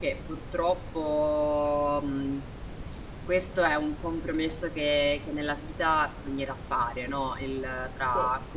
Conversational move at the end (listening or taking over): listening